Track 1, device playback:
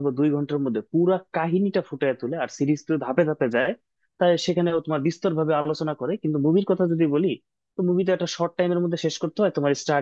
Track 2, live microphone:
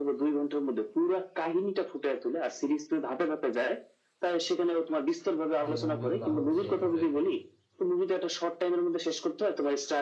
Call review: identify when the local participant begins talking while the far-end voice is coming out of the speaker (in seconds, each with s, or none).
5.6 s